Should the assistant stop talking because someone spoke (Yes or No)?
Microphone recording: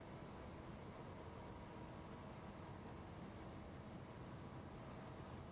No